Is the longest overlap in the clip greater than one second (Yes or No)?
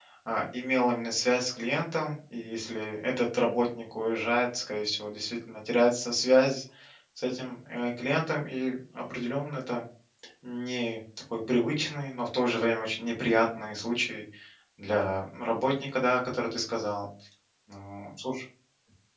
No